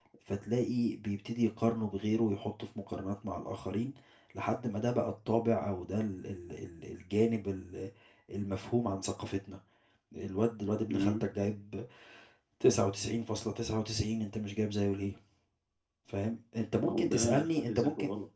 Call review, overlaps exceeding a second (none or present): present